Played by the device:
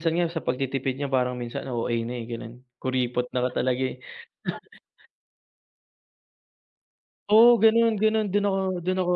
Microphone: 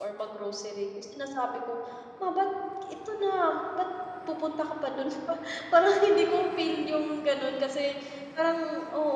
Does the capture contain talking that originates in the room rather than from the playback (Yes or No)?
Yes